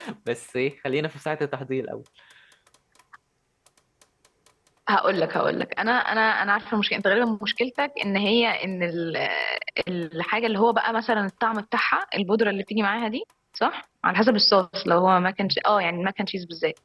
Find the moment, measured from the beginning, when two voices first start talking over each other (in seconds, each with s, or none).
none